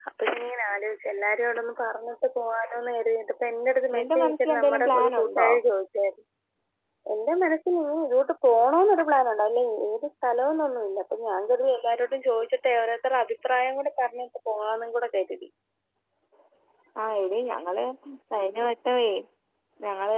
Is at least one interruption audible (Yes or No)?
Yes